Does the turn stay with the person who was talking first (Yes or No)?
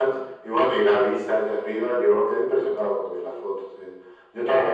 No